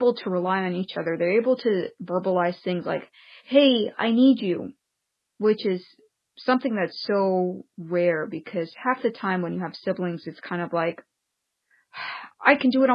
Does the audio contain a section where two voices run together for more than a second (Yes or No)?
No